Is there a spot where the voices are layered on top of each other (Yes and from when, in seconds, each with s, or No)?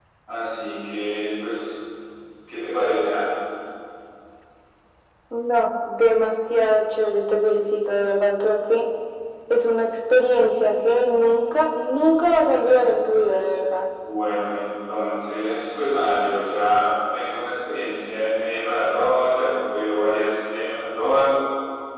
No